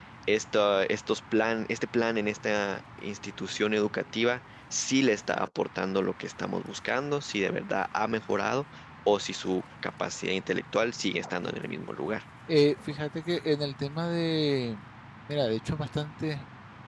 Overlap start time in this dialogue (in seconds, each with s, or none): none